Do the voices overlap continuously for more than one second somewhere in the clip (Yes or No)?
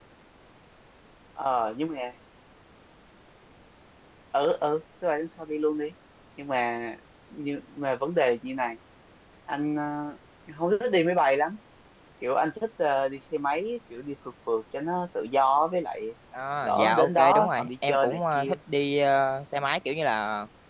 Yes